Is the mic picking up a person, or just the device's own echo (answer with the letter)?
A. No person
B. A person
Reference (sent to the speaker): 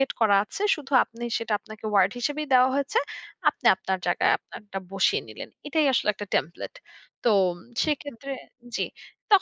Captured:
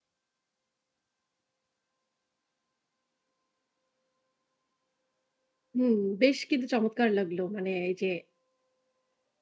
B